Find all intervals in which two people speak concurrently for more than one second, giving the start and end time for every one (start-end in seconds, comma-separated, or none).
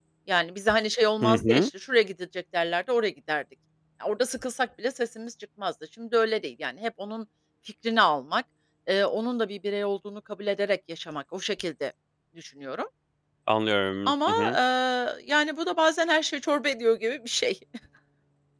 none